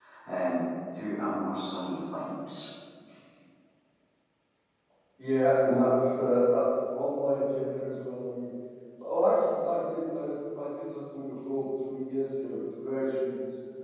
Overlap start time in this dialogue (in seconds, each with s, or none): none